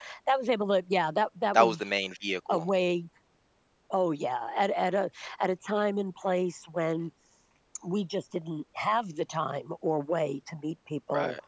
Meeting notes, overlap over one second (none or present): none